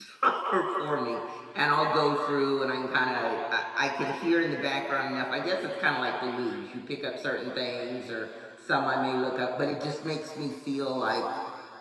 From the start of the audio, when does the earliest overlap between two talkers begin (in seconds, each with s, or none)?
none